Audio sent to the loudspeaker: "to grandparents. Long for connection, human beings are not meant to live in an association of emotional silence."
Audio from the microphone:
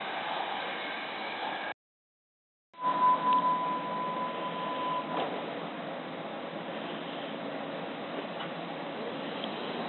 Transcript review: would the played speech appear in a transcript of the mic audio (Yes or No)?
No